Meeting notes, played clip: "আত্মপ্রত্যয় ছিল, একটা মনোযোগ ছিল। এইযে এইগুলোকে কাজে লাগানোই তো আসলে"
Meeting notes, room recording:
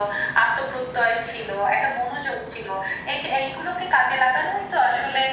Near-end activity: none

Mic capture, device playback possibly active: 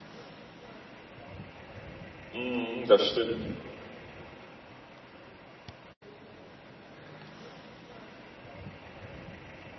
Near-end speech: present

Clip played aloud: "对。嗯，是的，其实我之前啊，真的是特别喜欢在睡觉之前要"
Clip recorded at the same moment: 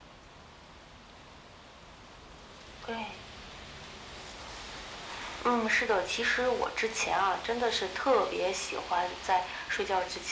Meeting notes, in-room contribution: none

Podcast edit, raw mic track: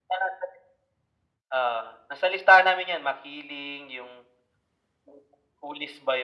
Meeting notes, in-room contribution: none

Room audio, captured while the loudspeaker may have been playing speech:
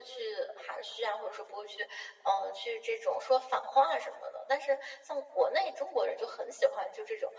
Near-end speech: none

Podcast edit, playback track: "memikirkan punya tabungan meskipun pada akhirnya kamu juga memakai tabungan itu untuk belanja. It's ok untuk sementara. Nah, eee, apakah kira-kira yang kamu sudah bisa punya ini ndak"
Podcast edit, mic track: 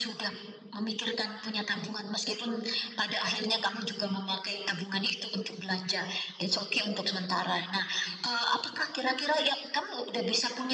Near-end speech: none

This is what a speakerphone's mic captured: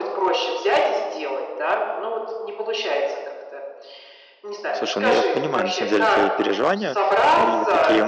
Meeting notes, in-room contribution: present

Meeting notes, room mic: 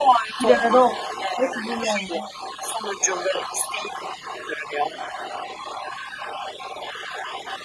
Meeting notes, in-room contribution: present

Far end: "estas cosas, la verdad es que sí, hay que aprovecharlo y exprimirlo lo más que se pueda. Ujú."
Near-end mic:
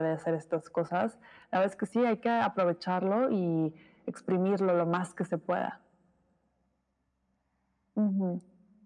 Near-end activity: none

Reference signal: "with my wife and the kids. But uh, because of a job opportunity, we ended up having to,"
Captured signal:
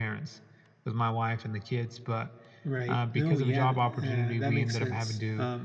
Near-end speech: present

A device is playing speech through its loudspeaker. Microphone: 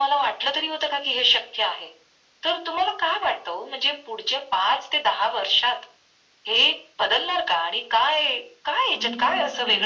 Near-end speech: present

